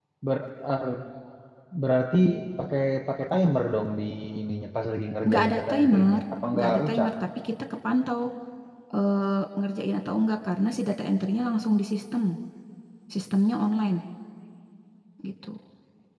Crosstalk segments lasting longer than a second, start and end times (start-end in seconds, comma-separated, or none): 5.3-7.1